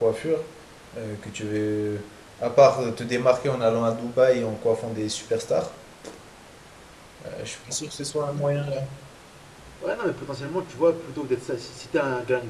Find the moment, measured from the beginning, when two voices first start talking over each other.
none

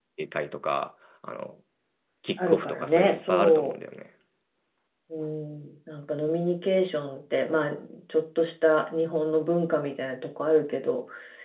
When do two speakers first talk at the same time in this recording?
2.4 s

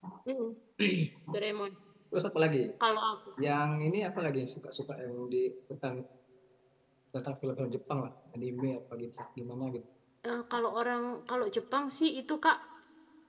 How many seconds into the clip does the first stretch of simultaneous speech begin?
none

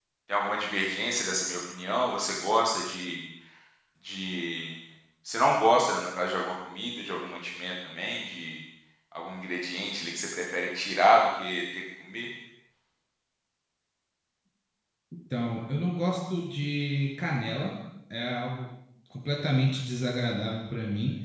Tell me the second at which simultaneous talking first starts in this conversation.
none

